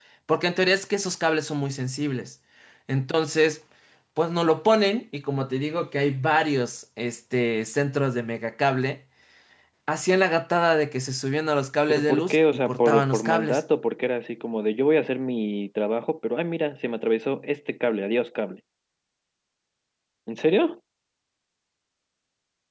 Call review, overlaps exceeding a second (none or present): present